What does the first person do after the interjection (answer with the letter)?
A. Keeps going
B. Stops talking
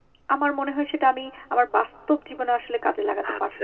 B